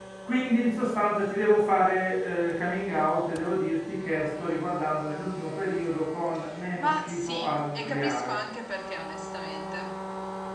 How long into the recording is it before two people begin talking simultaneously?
6.8 s

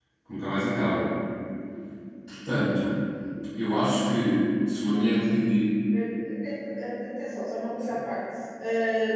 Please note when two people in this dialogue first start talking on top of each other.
none

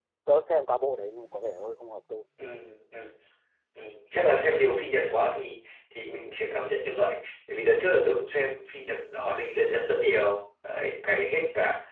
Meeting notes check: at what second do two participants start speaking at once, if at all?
none

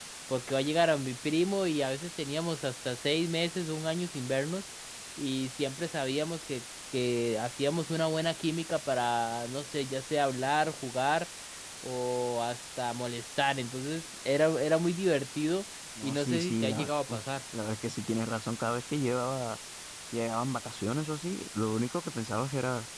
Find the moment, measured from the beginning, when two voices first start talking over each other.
16.0 s

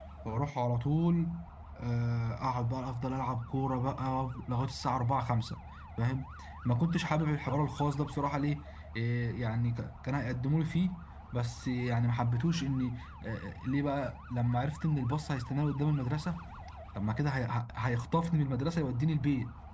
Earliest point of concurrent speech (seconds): none

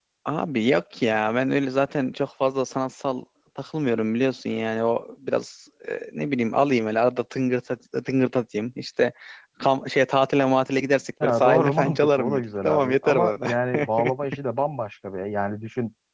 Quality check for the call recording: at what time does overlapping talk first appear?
11.2 s

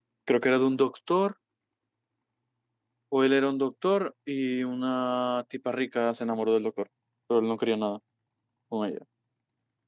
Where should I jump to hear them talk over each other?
none

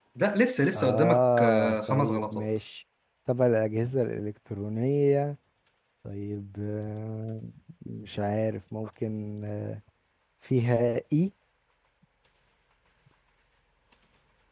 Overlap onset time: 0.7 s

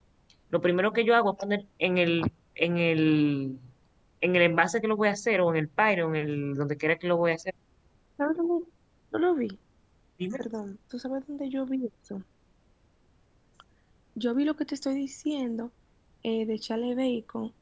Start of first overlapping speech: none

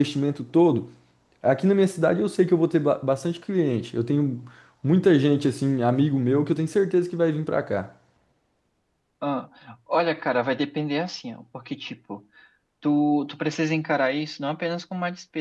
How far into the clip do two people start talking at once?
none

